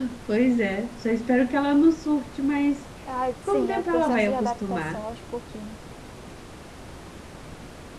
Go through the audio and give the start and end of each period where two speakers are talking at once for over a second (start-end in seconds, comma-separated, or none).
3.5-5.0